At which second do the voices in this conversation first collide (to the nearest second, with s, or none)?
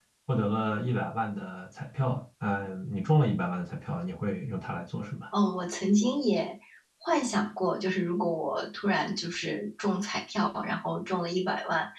none